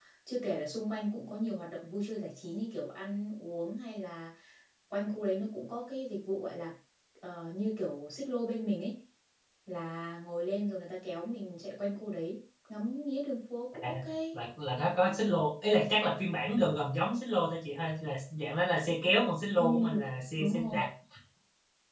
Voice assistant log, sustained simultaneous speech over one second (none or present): none